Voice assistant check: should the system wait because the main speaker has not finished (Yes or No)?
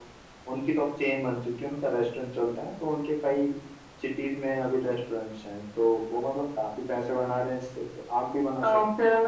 No